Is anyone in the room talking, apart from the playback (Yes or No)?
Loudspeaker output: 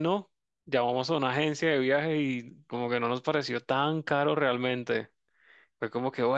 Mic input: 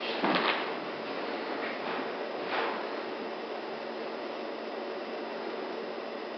No